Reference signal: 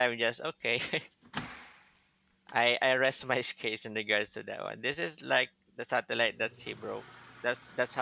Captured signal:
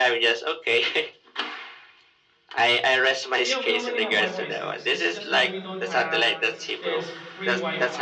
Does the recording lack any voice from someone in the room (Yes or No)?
No